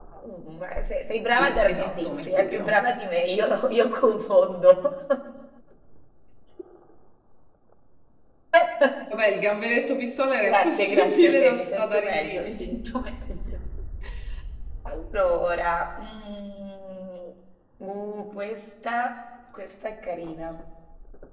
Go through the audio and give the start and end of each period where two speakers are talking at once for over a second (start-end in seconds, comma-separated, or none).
1.4-2.8, 10.4-12.7